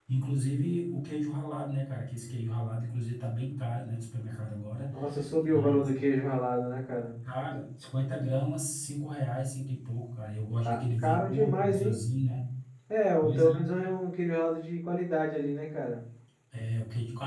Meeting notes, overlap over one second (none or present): present